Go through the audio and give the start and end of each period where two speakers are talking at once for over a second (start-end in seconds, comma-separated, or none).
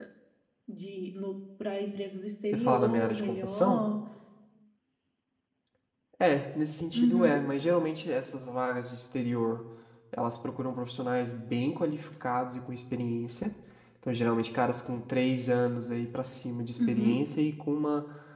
2.5-3.8